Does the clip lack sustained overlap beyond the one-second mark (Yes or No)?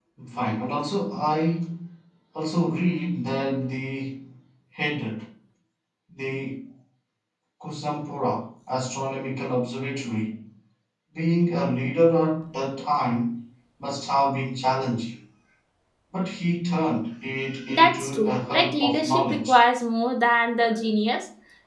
No